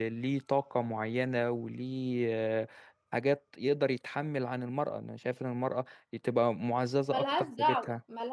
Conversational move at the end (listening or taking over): taking over